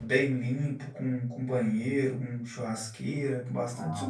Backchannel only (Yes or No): Yes